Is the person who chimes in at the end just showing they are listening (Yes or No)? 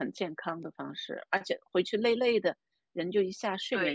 No